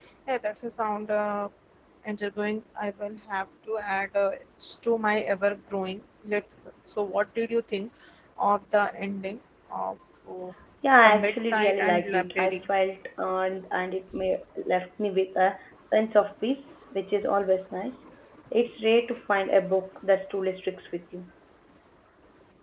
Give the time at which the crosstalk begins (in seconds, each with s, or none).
11.0 s